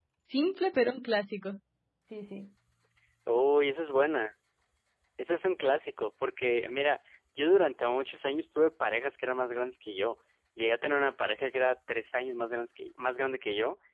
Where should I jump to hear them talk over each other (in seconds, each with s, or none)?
none